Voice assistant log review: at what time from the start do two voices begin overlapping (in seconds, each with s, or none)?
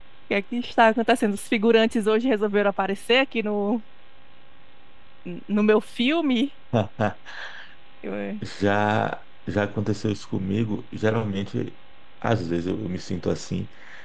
none